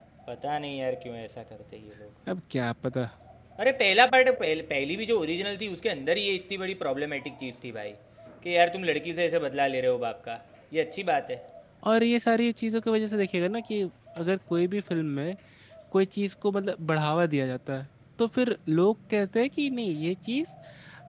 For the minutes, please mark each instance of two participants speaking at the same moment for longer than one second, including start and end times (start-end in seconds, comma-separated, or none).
none